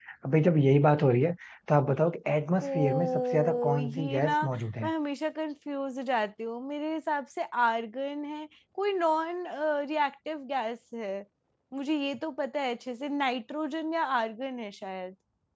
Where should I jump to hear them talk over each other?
2.6 s

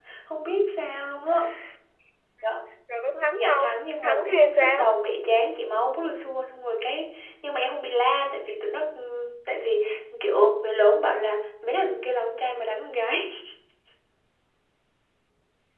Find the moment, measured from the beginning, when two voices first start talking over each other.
3.3 s

